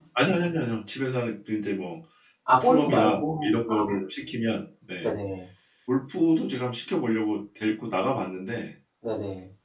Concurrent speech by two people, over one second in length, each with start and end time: 2.6-3.9

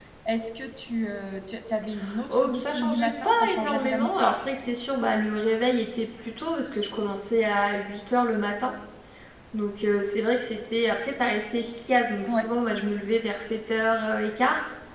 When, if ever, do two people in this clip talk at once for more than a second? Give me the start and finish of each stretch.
2.3-4.1

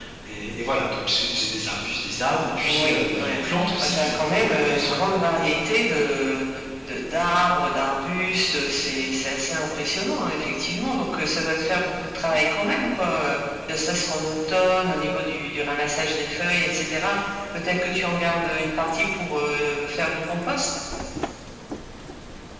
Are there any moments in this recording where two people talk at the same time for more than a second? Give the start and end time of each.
2.6-5.0

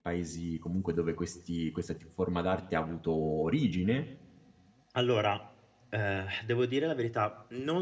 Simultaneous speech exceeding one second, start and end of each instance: none

